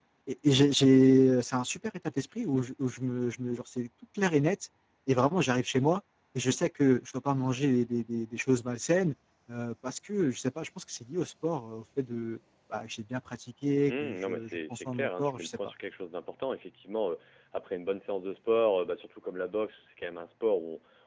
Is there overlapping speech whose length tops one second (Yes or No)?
Yes